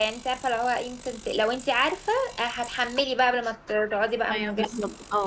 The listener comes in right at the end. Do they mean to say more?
Yes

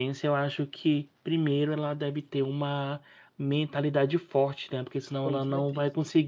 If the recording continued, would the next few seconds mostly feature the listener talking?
No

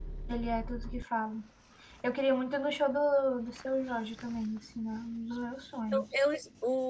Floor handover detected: Yes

